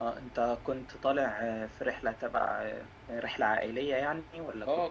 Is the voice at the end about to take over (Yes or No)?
Yes